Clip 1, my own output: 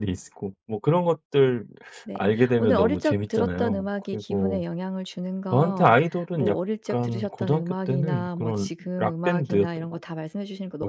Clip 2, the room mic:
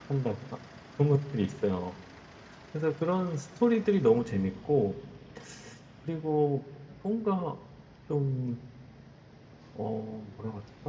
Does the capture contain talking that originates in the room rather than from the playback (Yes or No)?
Yes